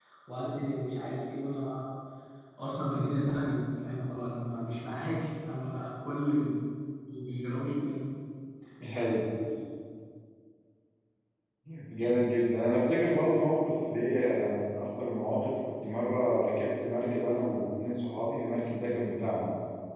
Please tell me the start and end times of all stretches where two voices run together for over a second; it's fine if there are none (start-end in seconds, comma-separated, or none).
none